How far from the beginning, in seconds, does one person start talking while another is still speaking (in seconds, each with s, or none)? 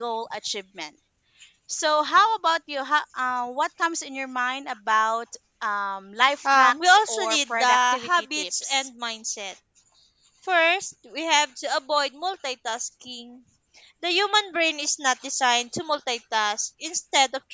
6.3 s